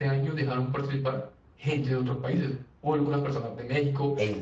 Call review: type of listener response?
listening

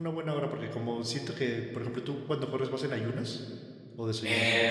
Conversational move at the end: taking over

